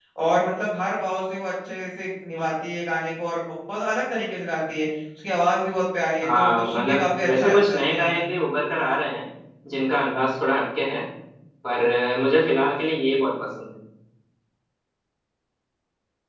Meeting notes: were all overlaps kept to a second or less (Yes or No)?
No